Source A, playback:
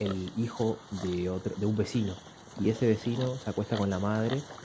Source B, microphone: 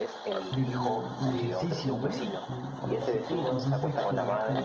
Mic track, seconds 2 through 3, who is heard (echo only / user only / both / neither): both